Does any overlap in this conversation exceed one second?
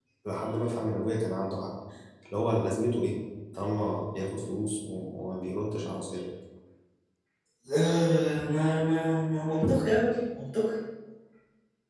No

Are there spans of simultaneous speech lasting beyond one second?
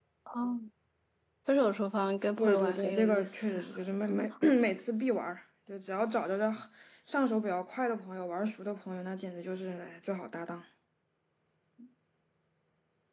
Yes, from 2.4 s

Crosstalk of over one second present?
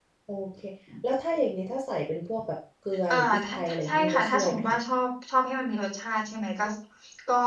Yes, from 3.1 s

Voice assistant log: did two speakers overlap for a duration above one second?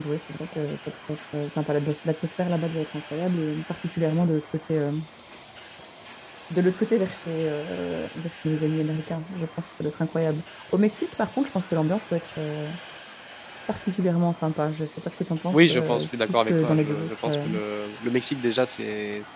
Yes, from 15.5 s

